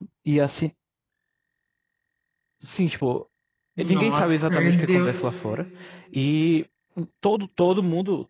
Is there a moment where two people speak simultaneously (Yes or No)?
Yes